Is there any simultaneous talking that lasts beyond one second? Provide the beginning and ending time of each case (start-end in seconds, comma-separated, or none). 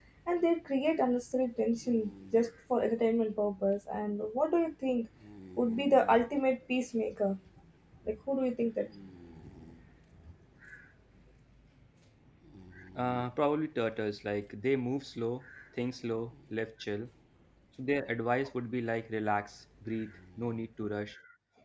none